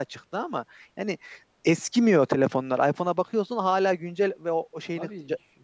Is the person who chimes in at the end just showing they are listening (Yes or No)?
Yes